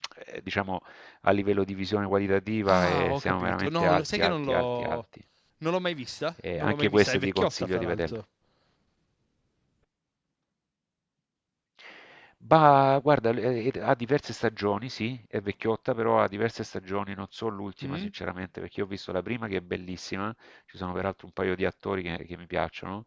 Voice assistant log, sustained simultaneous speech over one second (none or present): present